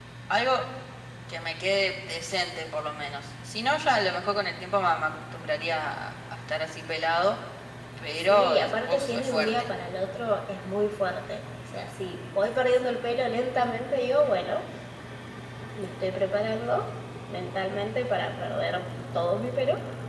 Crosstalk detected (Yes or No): Yes